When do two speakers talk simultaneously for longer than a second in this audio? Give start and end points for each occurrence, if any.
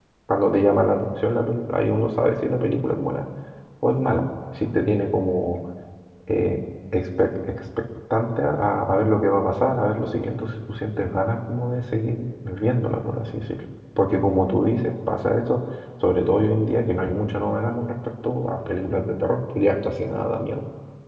none

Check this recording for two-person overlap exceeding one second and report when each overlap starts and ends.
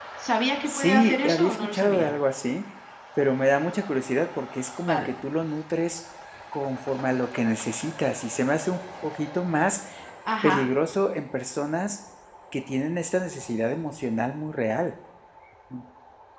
0.7-2.1

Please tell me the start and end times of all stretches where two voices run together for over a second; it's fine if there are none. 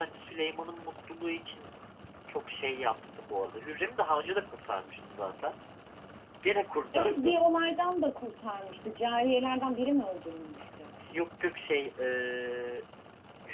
none

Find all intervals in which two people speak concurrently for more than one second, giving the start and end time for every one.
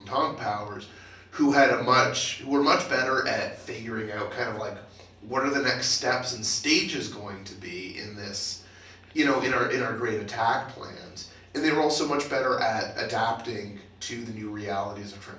none

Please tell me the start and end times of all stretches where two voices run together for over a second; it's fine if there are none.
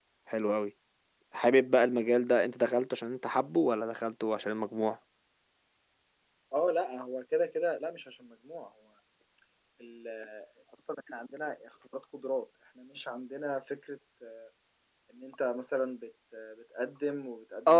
none

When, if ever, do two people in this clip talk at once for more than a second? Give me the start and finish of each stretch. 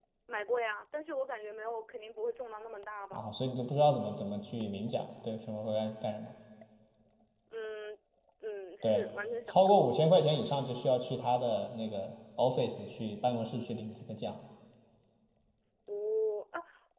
none

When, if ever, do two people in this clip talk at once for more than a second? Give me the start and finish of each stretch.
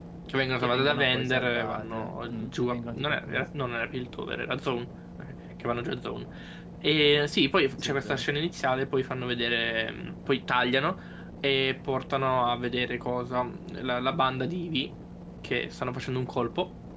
0.6-3.5

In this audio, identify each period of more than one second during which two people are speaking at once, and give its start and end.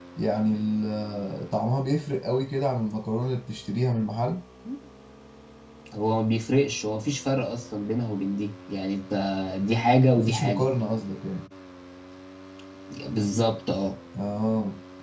none

